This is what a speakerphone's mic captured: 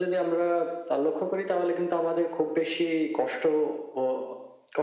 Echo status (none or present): present